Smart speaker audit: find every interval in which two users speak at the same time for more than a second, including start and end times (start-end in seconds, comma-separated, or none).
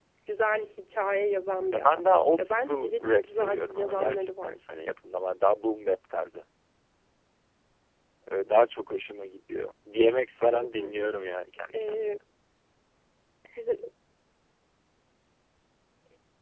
1.7-4.6